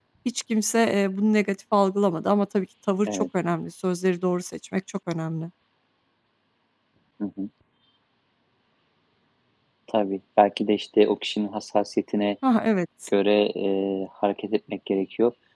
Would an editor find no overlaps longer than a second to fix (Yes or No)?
Yes